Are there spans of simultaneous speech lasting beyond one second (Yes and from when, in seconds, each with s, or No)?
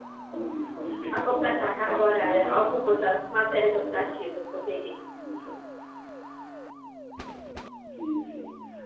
Yes, from 1.2 s